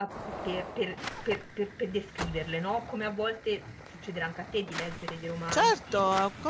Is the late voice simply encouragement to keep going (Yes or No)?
No